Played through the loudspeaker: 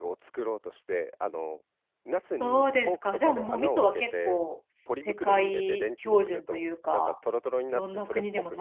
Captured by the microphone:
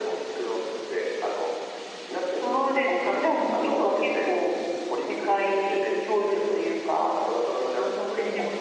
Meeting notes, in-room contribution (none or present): none